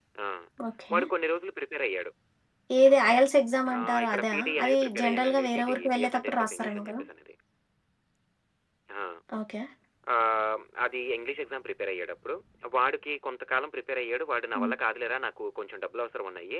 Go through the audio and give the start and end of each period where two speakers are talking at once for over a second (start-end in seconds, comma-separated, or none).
3.8-7.0